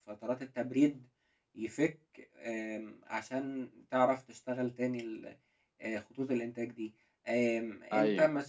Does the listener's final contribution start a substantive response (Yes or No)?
No